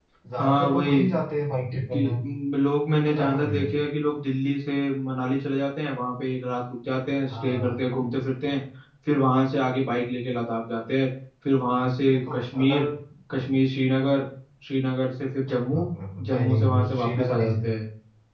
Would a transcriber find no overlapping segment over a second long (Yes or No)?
No